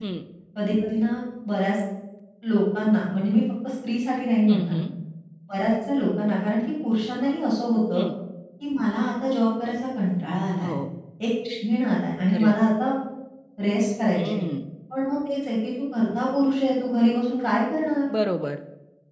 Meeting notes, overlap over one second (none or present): none